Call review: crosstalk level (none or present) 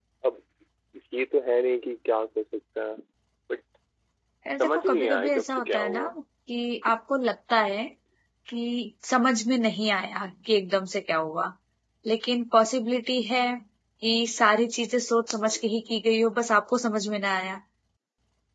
present